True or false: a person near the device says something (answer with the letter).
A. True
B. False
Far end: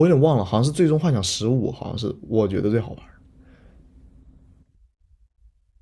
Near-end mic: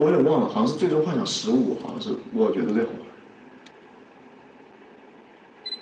B